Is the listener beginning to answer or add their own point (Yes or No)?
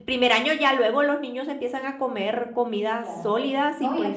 Yes